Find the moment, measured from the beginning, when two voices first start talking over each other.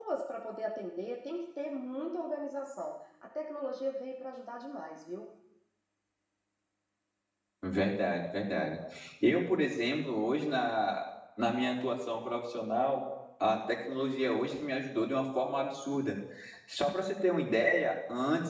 none

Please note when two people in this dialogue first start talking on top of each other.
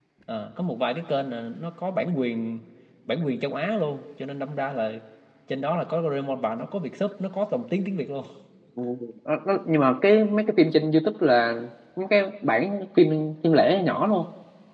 none

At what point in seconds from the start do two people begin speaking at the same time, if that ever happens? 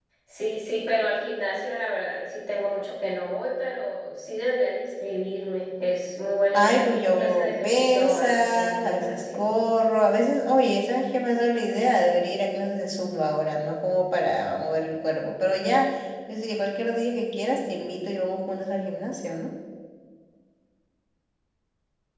7 s

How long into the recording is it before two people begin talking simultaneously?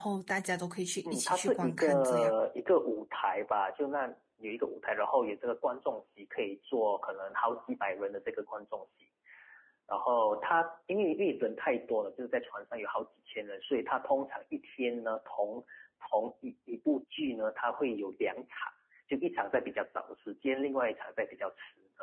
1 s

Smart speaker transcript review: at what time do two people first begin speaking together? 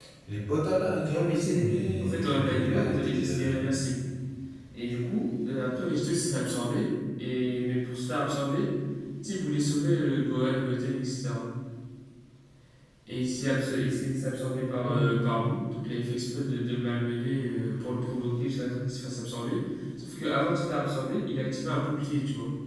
1 s

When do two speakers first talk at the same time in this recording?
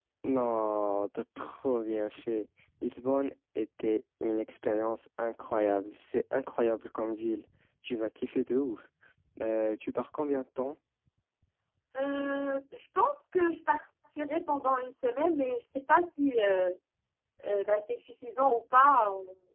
none

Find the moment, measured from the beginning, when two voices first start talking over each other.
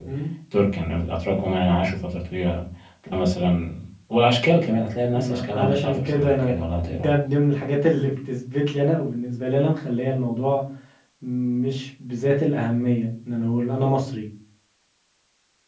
5 s

